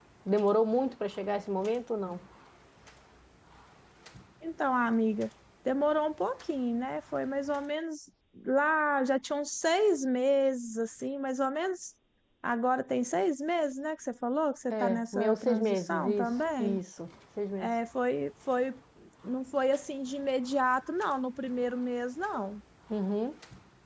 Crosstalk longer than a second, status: present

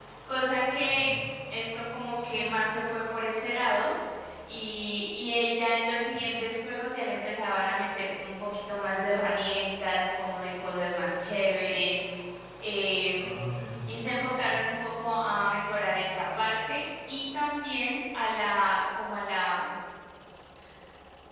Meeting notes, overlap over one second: none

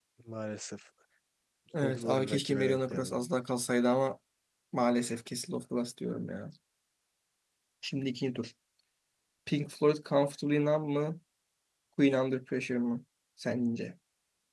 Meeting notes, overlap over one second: present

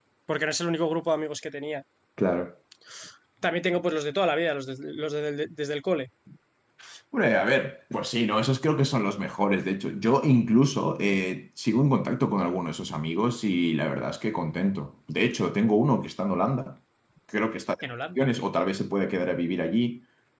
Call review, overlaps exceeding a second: none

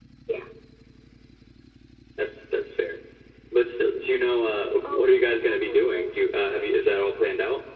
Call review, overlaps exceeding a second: present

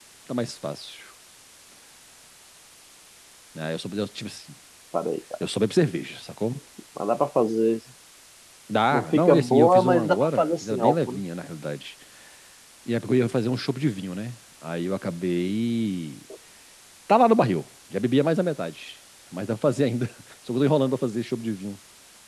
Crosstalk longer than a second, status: present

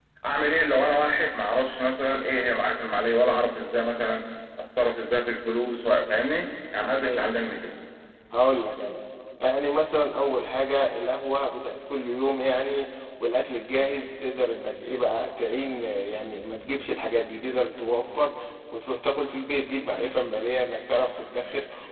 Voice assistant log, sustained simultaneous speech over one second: none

